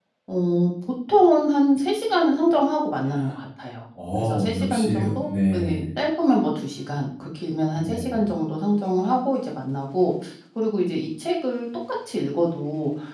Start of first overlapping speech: 4.2 s

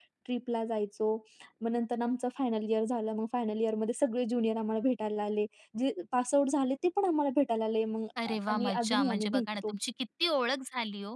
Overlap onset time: 8.2 s

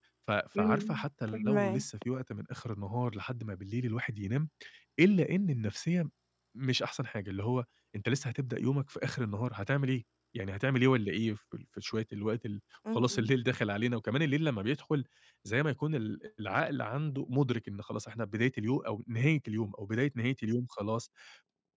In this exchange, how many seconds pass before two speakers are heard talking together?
0.6 s

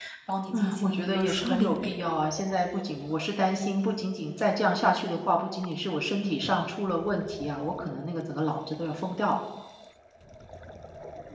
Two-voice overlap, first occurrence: 0.5 s

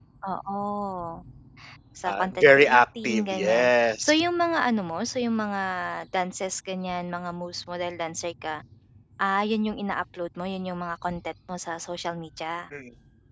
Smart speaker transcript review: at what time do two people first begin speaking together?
2.1 s

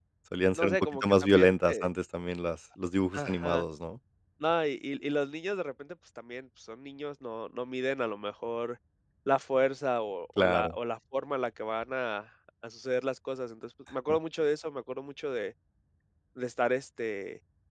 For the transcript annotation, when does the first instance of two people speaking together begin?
0.6 s

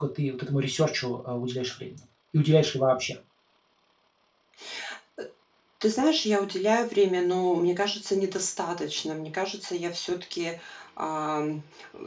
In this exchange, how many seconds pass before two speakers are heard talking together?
none

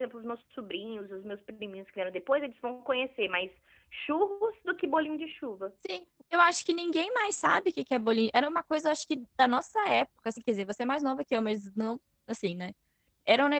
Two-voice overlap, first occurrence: none

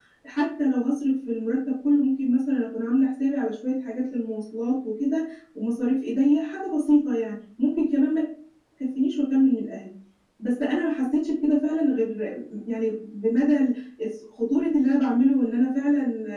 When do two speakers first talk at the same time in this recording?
none

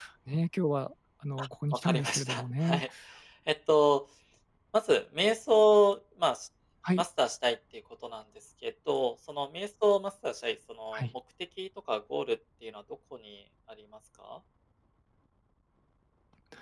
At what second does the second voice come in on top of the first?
1.4 s

